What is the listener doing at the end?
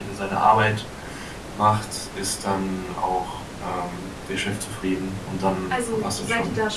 taking over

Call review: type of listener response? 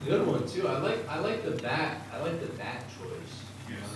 taking over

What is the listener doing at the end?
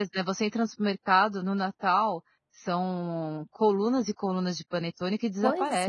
taking over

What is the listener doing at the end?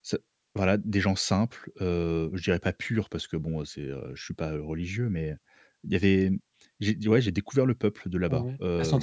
taking over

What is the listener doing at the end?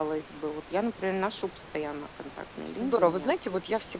taking over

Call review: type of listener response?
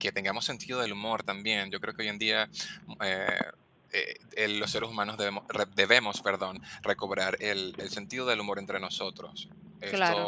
taking over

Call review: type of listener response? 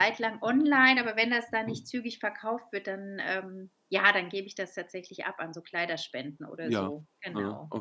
taking over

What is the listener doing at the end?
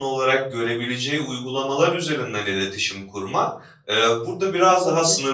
listening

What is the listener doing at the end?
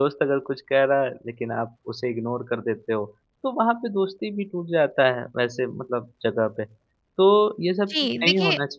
taking over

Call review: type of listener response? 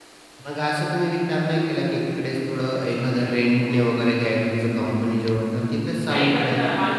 taking over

